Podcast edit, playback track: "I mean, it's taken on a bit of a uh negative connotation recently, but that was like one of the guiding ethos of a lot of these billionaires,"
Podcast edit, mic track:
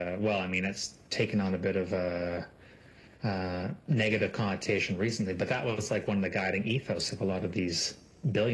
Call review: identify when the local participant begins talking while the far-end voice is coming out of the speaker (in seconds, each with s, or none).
none